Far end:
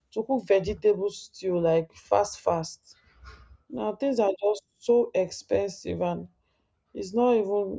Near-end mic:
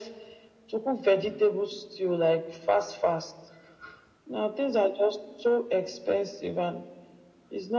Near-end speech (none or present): none